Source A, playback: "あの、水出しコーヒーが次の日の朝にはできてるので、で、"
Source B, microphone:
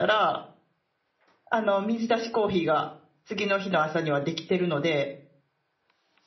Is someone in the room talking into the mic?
No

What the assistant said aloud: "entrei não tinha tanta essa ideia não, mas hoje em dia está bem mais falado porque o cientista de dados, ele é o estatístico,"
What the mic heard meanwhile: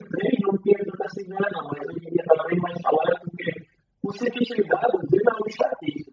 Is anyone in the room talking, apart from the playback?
No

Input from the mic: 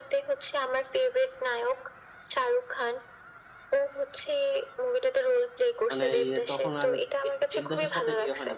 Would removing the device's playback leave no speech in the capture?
No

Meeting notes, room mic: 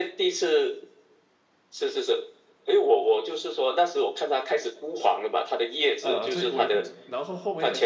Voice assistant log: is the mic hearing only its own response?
No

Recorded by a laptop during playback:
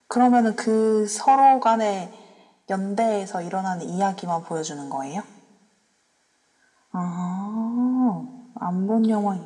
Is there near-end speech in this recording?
No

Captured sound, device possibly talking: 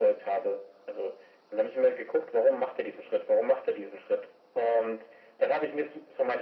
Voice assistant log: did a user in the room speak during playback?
No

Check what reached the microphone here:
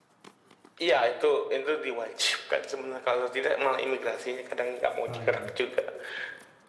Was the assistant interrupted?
Yes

